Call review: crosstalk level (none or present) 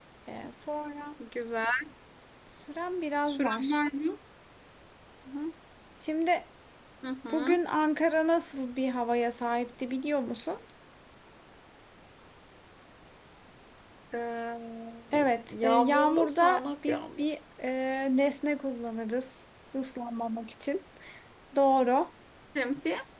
present